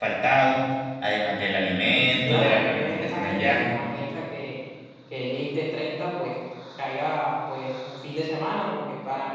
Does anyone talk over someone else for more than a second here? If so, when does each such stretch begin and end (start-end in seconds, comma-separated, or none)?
2.0-3.8